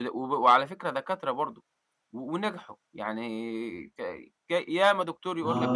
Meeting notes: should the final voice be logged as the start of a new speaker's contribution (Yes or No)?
No